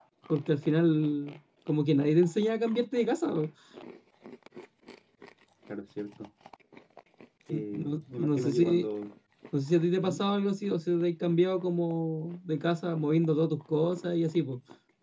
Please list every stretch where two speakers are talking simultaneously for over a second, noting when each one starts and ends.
7.5-8.9

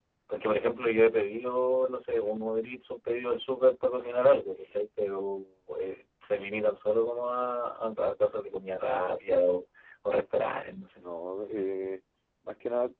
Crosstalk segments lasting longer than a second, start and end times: none

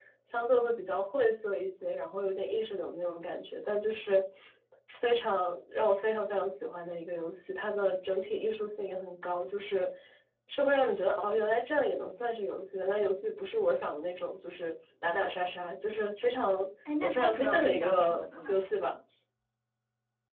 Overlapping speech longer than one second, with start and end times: 17.0-18.6

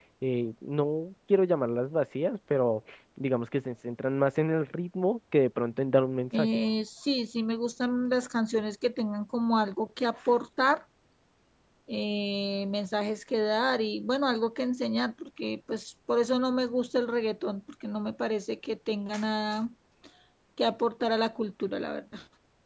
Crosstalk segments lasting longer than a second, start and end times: none

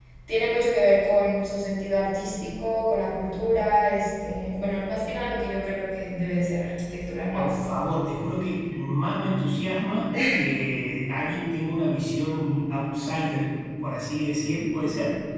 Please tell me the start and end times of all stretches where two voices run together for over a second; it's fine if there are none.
none

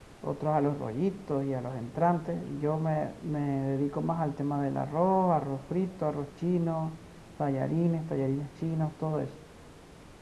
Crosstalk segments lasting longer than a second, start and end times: none

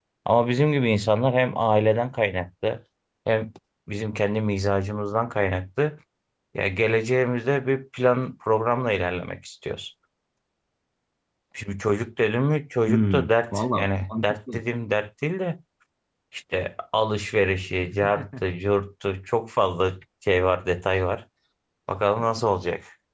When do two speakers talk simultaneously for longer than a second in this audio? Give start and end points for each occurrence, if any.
12.9-14.6

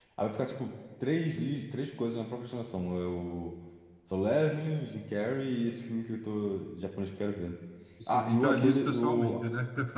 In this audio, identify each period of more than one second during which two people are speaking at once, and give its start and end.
8.1-9.4

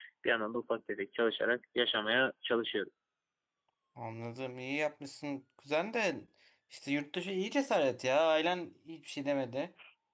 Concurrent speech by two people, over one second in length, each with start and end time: none

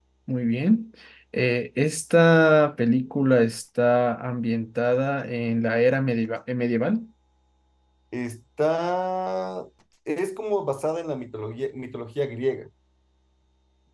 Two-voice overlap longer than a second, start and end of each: none

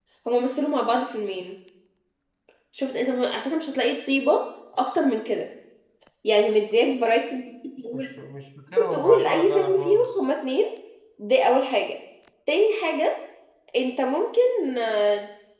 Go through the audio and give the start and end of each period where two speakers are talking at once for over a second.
8.8-10.1

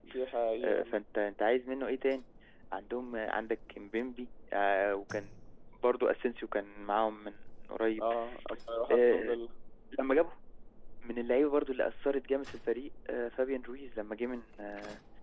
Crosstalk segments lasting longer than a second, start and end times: none

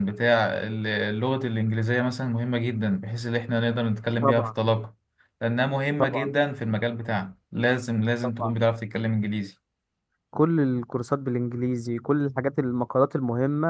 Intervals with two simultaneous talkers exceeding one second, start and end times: none

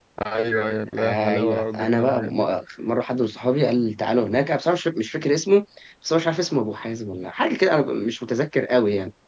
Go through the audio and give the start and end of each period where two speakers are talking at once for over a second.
1.0-2.5

